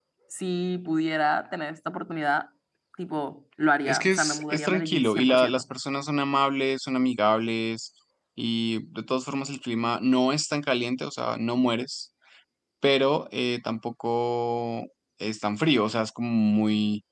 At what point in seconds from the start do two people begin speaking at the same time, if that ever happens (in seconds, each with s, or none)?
3.9 s